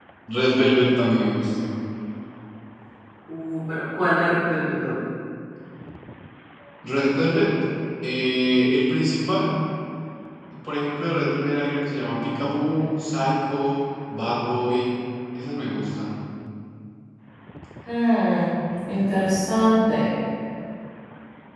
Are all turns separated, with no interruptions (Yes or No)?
Yes